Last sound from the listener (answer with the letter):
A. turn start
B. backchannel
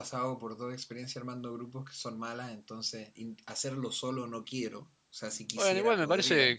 A